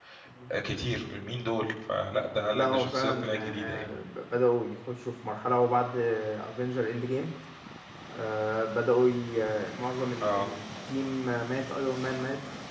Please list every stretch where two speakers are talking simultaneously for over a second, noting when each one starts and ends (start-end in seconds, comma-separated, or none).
2.5-3.9